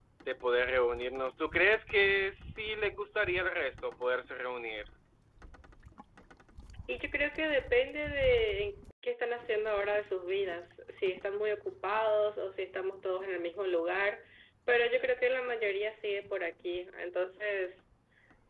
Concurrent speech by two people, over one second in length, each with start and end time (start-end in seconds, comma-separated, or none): none